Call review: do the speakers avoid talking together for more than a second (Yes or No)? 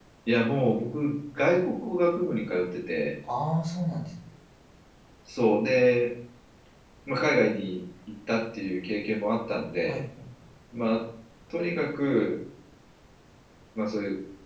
Yes